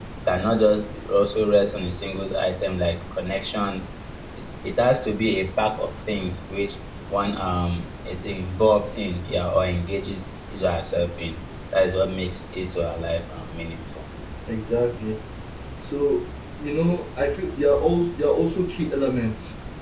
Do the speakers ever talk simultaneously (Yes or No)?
No